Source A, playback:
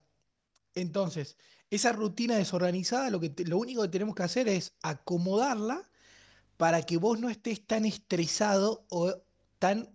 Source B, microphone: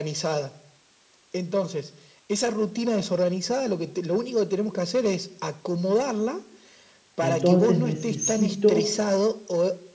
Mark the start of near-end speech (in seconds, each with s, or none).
7.2 s